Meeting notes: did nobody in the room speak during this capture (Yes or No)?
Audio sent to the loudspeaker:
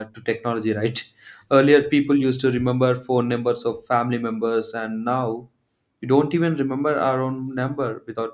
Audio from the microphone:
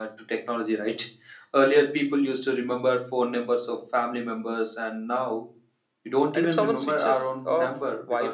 No